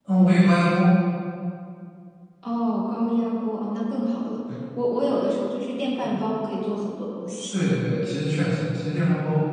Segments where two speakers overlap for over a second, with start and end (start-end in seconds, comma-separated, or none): none